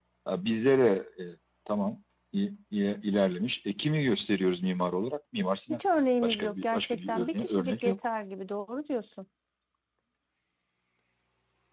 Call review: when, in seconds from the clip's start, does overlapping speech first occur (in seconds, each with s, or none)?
6.2 s